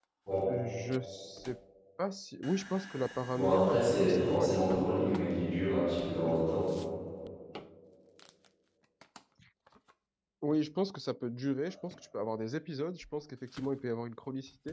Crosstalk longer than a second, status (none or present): present